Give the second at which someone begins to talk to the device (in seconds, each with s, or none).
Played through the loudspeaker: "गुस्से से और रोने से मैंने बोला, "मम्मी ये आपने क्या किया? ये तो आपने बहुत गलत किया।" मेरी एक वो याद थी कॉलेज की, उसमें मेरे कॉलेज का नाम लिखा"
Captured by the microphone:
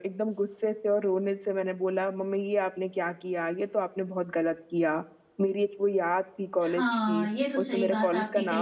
6.6 s